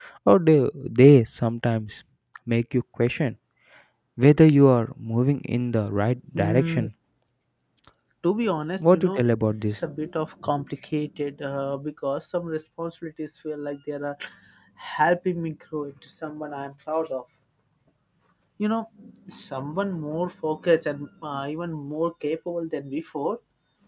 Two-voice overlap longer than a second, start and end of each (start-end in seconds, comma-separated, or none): none